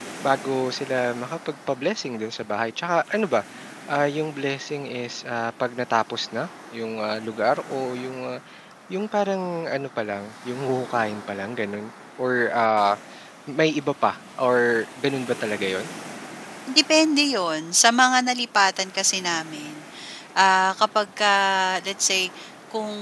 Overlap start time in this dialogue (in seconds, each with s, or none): none